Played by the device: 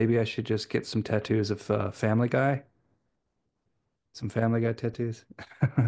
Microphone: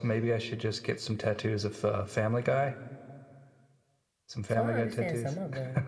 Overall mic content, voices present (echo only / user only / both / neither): both